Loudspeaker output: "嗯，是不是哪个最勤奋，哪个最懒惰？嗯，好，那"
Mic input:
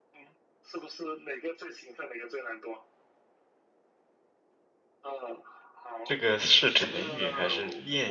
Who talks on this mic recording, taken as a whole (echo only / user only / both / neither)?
both